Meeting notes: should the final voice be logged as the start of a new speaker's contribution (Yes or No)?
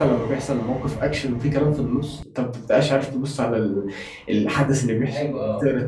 No